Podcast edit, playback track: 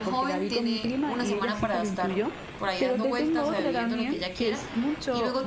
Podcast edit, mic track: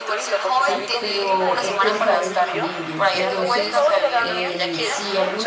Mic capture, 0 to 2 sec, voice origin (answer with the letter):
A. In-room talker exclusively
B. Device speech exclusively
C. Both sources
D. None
C